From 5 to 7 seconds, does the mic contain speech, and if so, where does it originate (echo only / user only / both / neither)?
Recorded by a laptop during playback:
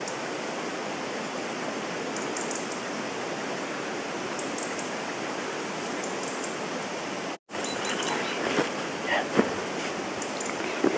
neither